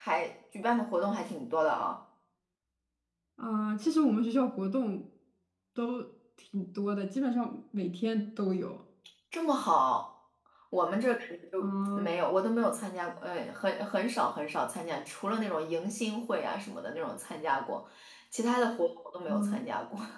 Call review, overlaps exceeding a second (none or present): none